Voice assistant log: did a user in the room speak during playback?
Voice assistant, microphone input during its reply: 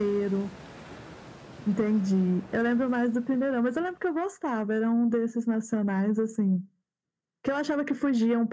No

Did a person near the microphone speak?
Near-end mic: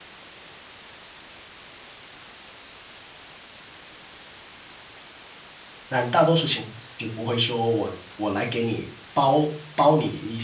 Yes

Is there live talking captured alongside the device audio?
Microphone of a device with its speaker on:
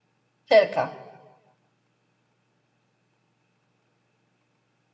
Yes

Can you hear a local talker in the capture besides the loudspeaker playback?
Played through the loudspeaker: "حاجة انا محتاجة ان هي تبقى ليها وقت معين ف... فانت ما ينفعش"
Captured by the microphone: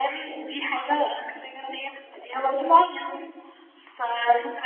No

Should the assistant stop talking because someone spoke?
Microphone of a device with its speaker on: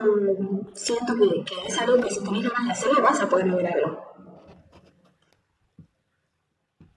No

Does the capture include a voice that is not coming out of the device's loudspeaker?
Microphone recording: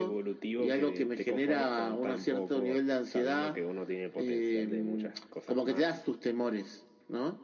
No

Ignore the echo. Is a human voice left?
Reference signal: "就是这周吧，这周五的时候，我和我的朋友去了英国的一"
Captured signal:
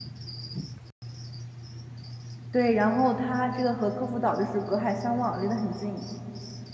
Yes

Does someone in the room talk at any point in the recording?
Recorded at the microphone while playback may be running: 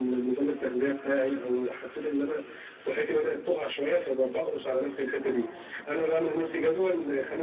No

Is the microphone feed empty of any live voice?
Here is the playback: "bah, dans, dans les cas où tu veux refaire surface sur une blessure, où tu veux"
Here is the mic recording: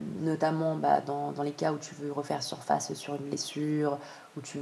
Yes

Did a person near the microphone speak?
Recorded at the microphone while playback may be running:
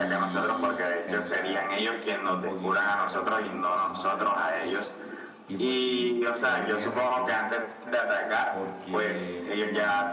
Yes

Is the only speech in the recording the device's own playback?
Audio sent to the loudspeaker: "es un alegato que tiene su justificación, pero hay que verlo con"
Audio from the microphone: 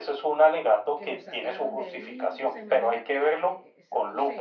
No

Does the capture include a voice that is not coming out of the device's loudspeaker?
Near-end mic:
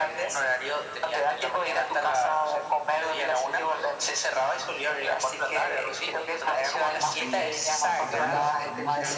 Yes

